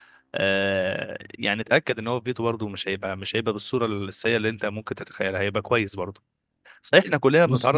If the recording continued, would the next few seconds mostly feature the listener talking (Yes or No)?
No